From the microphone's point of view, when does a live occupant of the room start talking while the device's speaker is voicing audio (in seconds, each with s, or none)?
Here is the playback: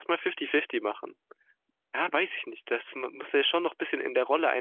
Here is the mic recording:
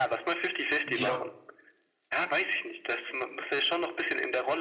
0.8 s